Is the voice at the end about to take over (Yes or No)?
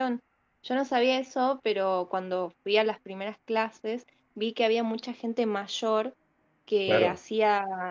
No